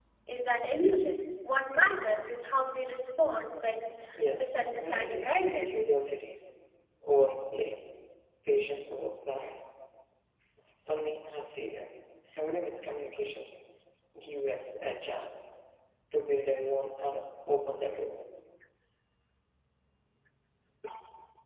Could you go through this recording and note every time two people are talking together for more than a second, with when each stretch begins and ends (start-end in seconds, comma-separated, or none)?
4.2-5.8